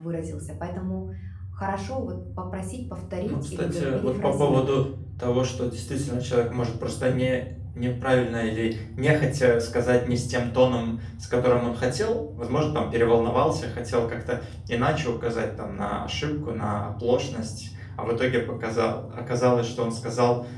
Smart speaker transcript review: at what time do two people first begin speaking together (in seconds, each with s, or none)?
3.3 s